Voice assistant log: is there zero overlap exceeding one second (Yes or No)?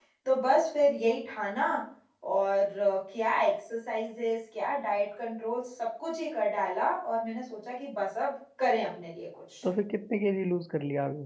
Yes